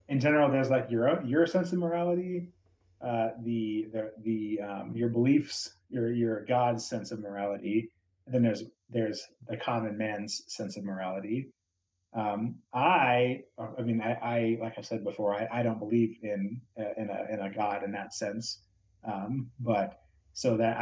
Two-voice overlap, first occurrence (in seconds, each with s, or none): none